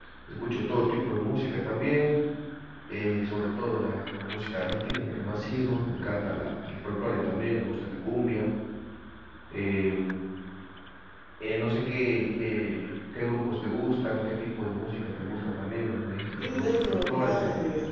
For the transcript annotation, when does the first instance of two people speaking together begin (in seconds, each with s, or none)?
16.4 s